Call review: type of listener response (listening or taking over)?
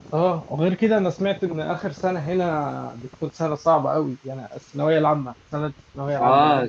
taking over